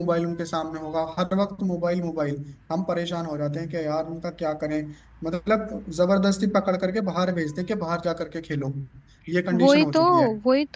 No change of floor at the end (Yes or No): No